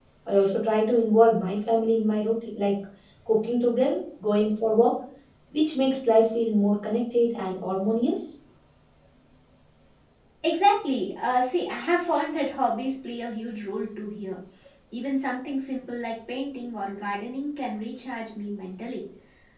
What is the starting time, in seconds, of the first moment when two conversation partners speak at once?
none

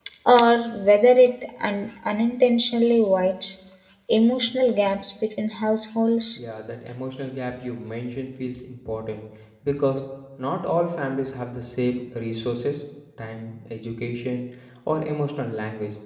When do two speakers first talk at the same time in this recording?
none

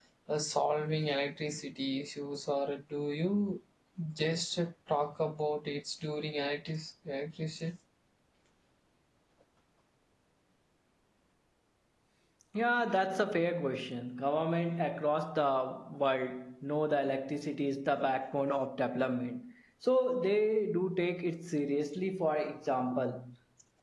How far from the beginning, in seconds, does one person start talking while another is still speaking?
none

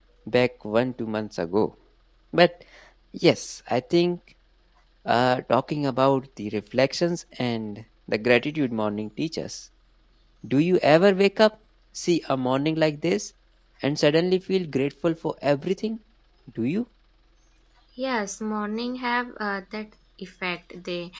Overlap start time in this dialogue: none

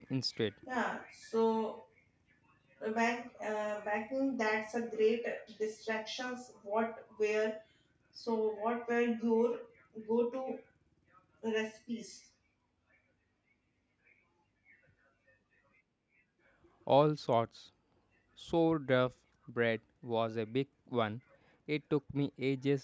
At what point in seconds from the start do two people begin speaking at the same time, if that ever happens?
none

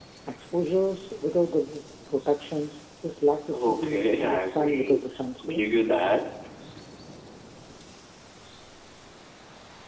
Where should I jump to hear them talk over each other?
4 s

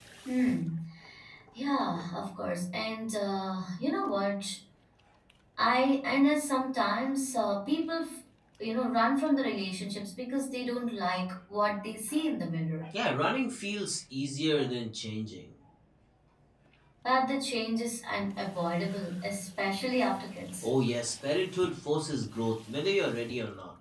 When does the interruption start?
none

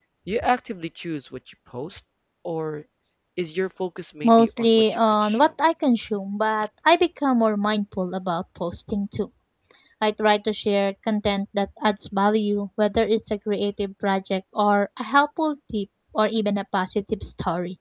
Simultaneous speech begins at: 4 s

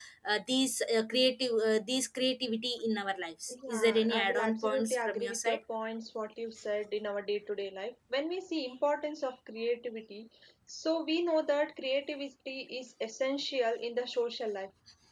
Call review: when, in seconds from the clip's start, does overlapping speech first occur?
3 s

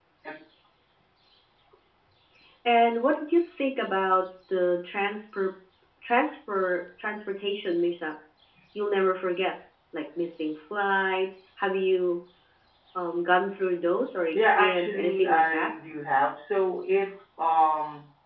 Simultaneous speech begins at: 14 s

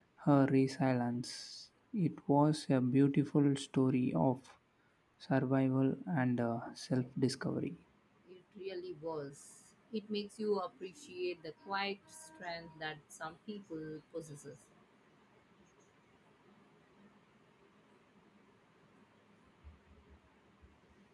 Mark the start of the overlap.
none

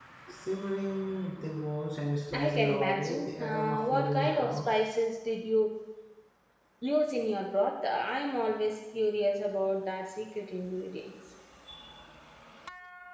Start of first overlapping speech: 2 s

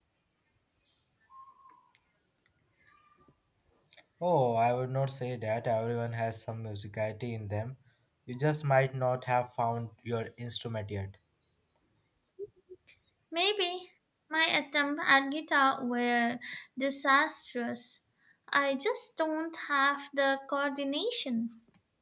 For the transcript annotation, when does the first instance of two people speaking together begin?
none

